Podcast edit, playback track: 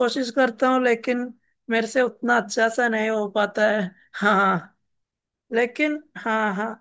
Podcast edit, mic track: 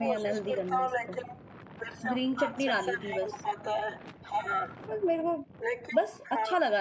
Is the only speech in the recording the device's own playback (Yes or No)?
No